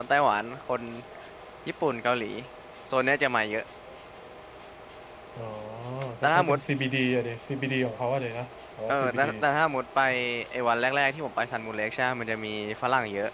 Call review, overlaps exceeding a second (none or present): none